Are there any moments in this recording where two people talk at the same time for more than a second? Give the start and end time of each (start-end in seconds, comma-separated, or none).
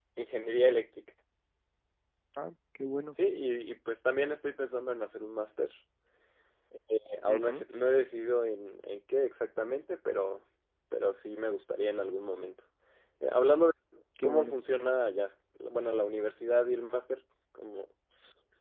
none